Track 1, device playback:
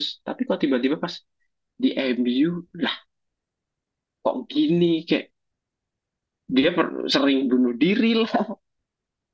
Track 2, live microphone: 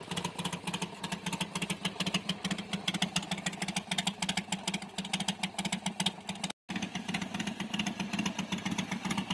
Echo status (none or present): none